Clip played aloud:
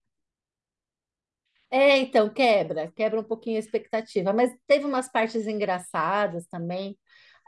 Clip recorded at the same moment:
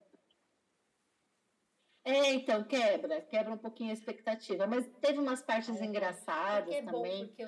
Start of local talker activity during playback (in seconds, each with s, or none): 5.6 s